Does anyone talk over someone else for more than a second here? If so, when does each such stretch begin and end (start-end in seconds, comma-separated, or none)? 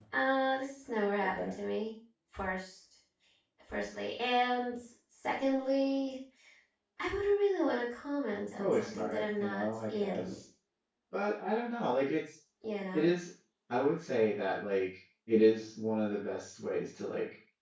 8.6-10.2